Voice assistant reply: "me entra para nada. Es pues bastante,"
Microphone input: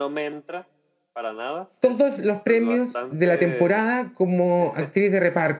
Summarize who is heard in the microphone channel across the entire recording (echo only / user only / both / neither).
both